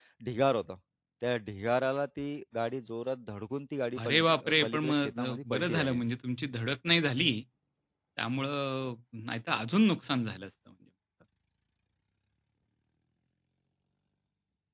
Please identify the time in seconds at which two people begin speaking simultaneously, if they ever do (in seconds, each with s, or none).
4.0 s